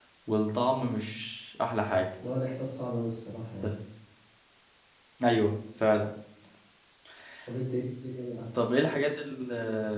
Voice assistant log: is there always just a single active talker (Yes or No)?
Yes